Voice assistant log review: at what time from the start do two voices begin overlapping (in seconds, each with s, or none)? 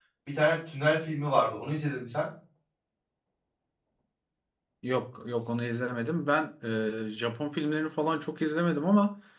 none